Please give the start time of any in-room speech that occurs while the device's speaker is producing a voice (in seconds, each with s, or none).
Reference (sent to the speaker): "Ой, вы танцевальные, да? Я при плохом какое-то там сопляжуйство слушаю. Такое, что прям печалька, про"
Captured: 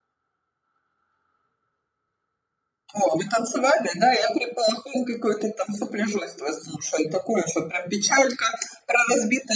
none